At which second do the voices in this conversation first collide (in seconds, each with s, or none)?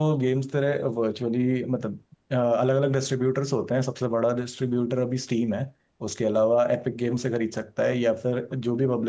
none